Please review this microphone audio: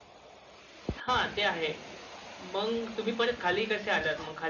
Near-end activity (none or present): none